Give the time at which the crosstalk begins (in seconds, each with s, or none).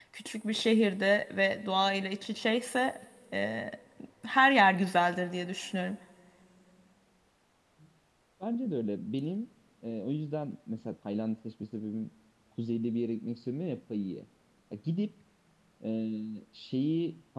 none